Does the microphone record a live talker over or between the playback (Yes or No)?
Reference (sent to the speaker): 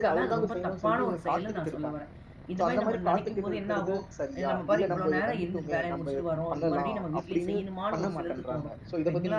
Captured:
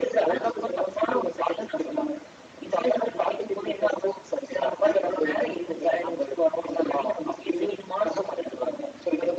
No